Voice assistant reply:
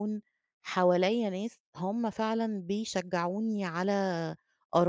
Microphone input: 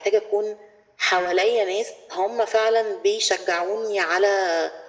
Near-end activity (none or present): none